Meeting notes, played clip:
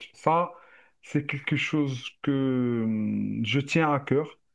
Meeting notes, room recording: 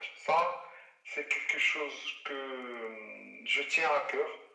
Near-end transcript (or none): none